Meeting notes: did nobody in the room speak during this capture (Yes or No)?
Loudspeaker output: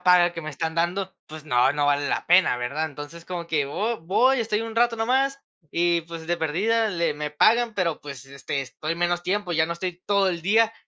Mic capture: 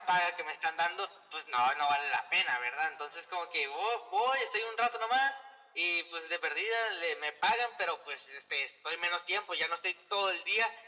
Yes